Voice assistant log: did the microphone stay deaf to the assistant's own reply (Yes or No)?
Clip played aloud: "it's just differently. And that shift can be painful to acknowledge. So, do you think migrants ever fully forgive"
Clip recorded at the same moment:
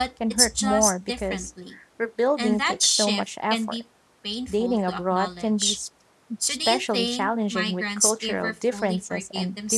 No